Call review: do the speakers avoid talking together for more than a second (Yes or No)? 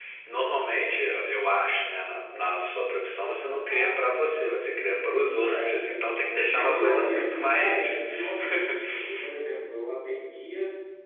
No